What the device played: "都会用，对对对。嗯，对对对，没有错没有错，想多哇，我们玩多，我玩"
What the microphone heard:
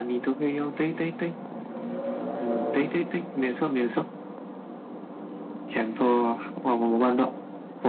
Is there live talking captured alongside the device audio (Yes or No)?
No